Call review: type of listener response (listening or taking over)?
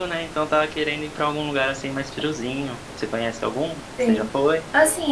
taking over